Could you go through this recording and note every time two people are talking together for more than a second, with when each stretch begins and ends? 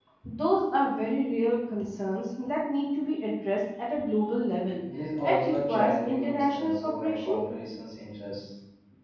5.2-7.4

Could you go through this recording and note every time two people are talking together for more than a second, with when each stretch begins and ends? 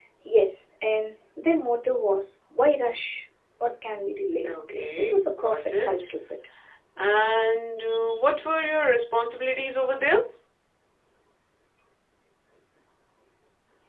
4.5-5.9

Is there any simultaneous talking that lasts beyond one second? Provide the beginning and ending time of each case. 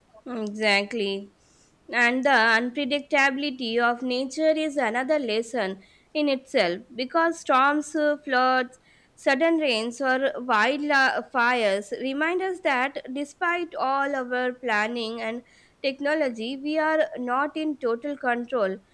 none

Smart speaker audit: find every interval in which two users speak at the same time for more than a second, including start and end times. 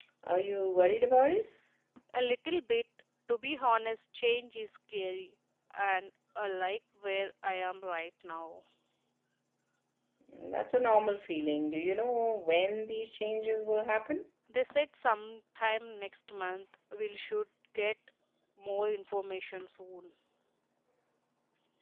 none

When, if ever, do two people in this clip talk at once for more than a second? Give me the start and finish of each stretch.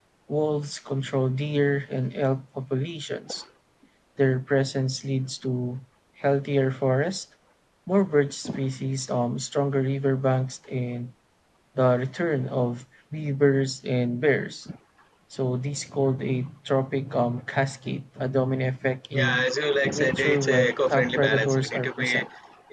19.9-22.1

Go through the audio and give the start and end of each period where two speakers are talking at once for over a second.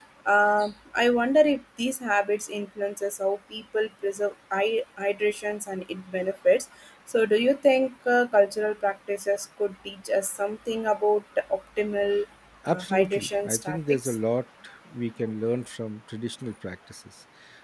12.7-14.2

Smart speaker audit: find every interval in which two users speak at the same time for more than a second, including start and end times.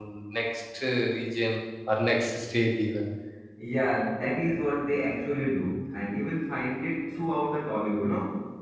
none

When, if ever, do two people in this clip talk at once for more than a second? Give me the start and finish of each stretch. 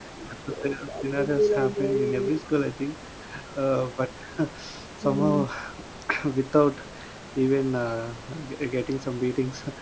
0.6-2.3

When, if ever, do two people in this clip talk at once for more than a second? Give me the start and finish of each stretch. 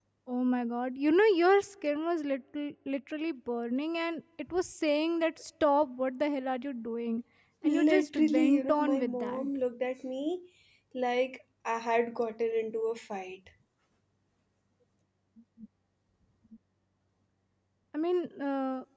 7.6-9.4

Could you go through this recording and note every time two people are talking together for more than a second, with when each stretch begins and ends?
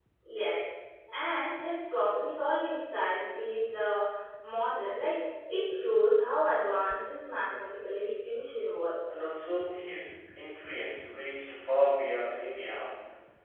none

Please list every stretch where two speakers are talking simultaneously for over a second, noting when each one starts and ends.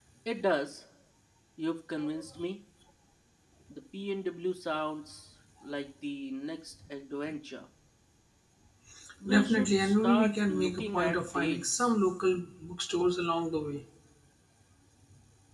9.3-11.9

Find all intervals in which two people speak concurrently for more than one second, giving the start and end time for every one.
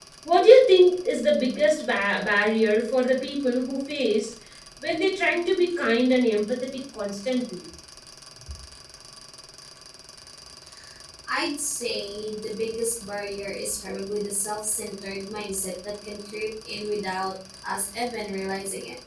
none

